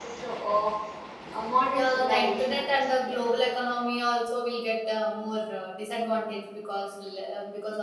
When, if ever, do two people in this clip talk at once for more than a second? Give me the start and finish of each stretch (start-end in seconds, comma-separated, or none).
1.8-3.2